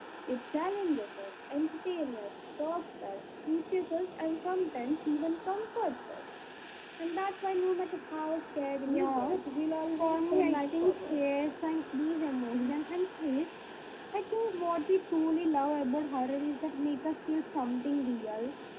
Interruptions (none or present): present